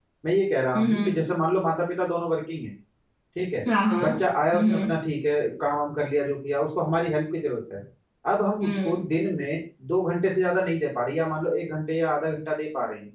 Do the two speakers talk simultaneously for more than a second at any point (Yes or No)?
No